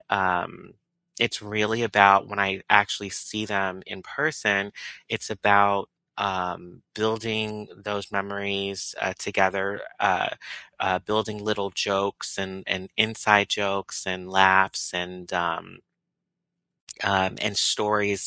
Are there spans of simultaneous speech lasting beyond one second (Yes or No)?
No